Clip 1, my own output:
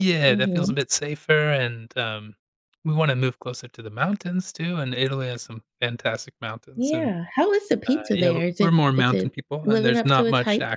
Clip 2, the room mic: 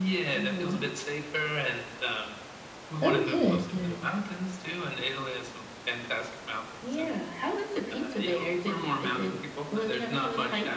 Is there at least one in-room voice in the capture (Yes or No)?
Yes